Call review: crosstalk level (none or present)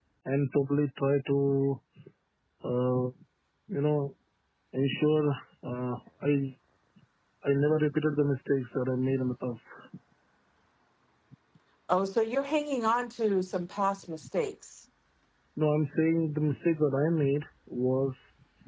none